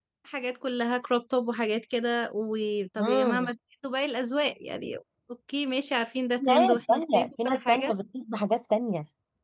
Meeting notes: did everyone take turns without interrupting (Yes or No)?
No